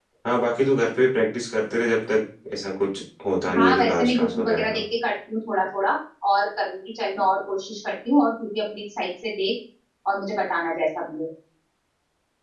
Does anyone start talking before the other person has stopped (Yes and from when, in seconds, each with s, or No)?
Yes, from 3.5 s